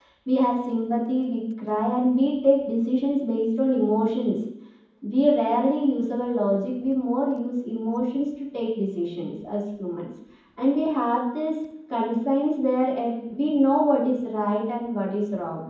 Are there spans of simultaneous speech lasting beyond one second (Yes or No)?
No